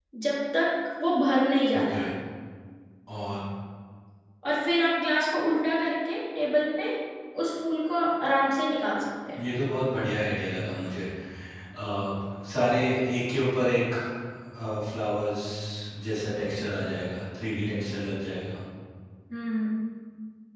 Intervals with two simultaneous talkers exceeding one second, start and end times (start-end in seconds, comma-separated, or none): none